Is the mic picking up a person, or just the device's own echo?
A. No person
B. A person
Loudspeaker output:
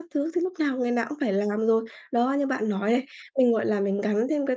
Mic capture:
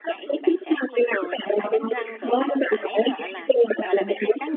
B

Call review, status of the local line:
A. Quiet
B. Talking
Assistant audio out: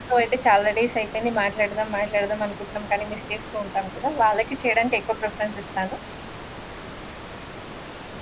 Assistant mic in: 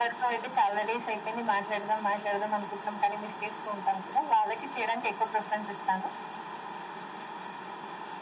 A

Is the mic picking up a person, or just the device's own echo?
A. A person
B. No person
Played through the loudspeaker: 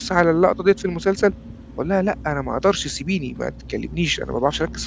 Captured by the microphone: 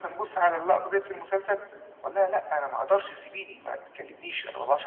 B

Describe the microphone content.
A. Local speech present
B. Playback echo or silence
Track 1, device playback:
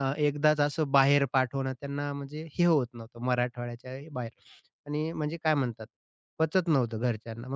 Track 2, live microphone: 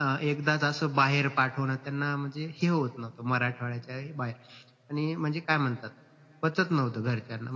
B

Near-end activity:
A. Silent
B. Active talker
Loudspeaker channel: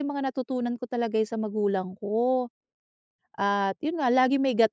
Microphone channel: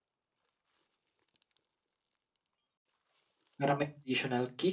B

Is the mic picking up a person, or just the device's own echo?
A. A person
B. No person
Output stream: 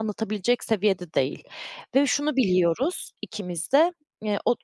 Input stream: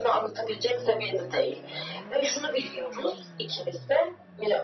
B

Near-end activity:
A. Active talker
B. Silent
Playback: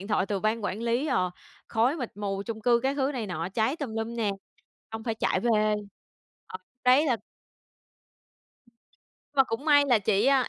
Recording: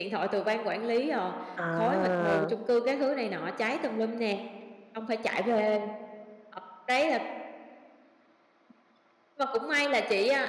A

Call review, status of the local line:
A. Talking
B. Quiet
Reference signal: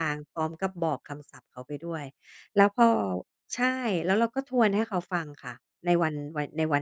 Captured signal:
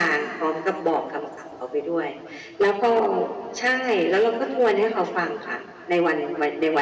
B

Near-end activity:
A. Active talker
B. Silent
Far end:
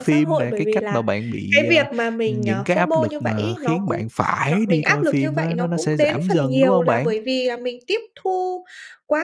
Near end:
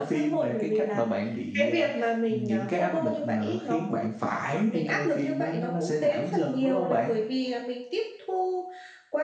B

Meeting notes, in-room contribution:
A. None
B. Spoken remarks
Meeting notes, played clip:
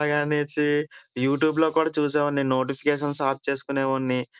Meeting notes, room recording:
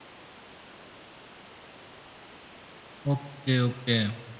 B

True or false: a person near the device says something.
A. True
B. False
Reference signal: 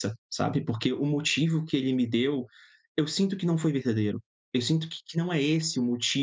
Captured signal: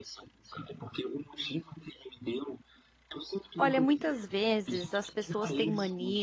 A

